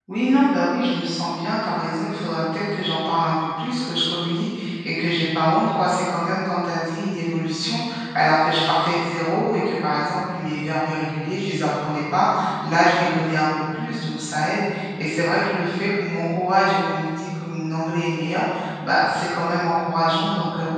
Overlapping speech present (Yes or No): No